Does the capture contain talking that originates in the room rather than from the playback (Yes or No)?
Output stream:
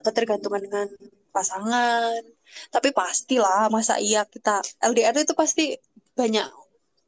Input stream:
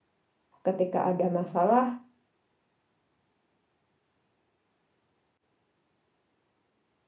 Yes